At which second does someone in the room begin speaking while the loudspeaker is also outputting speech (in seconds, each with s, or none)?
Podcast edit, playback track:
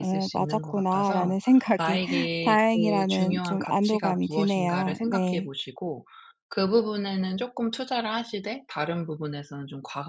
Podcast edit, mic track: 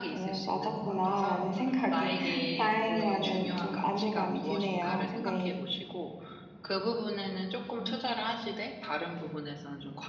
none